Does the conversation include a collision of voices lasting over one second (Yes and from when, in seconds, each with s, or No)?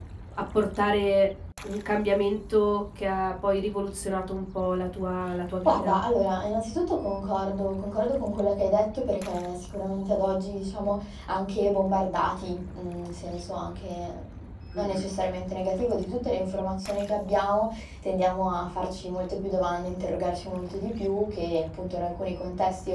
No